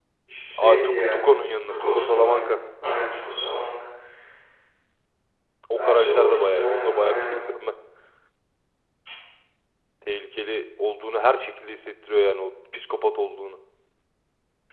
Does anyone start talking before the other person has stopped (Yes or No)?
Yes